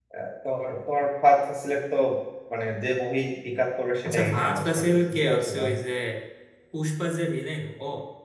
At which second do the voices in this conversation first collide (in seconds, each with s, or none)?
4.0 s